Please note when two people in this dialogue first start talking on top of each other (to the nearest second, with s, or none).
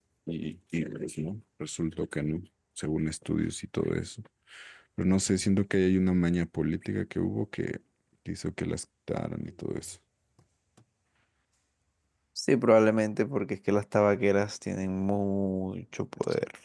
none